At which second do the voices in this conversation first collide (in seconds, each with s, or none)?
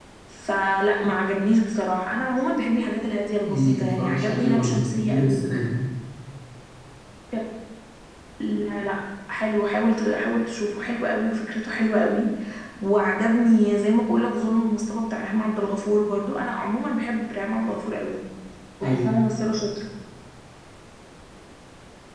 3.5 s